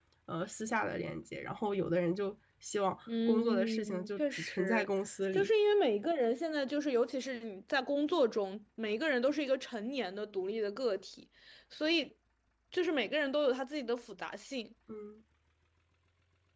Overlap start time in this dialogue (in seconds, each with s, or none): 3.1 s